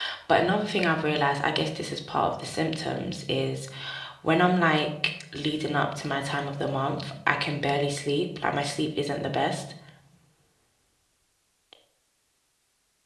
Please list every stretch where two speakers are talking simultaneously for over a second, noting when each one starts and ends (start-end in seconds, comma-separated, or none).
none